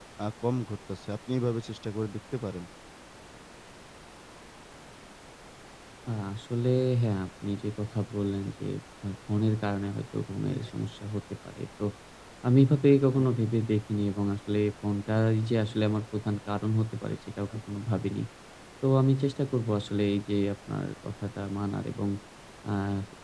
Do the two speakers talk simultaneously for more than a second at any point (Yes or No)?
No